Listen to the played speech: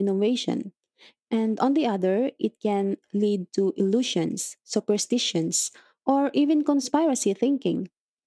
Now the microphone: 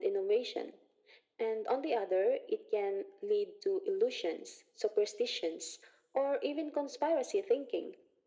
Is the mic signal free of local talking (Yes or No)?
Yes